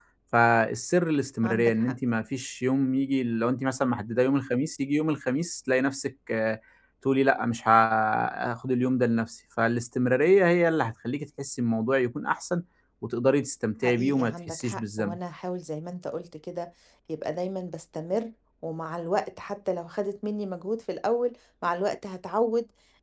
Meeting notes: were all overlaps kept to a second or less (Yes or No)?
No